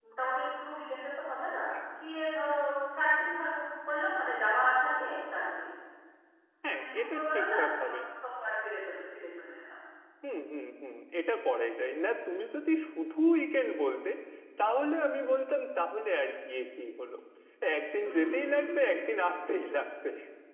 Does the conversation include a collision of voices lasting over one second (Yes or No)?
Yes